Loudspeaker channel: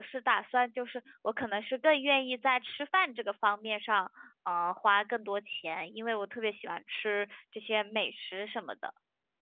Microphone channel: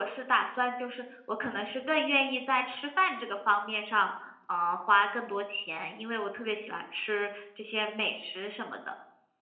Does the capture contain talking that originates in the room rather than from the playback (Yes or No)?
No